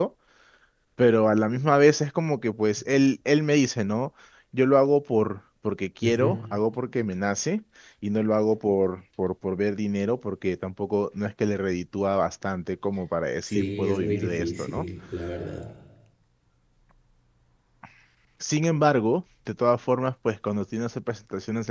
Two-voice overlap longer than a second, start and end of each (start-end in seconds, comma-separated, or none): 13.4-14.8